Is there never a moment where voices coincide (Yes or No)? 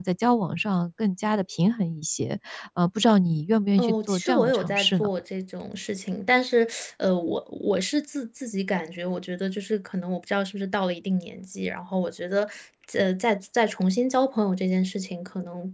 No